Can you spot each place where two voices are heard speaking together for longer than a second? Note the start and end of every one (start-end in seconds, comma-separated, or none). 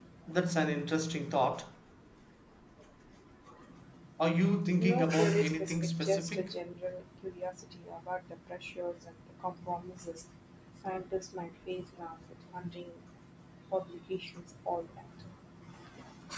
4.8-6.5